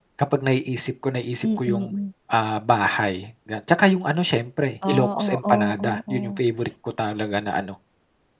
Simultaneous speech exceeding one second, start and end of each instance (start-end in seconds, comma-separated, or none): 4.9-6.4